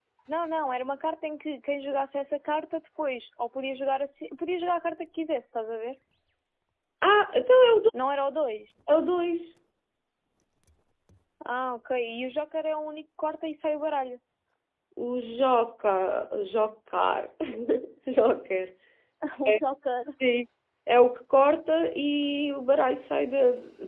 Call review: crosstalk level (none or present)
none